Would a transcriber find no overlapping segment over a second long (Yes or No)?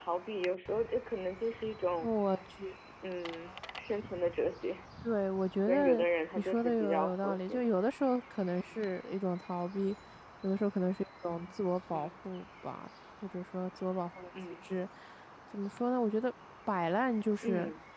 No